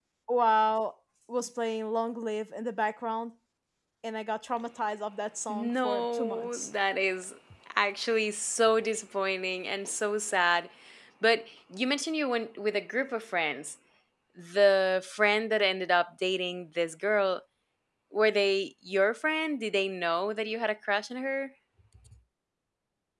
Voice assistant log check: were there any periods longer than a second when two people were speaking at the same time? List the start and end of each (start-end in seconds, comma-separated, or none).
5.5-6.7